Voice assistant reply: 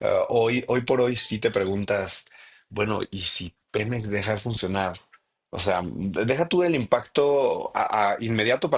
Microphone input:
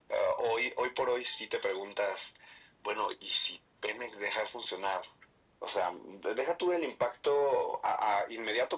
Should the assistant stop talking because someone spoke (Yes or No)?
No